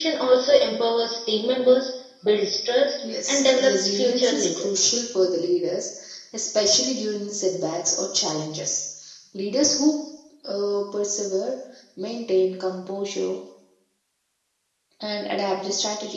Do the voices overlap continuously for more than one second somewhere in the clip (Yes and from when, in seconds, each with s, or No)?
Yes, from 3.3 s